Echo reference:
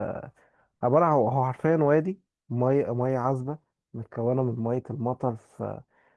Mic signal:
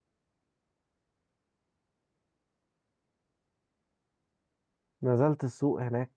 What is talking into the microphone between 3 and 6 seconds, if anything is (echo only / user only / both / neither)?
user only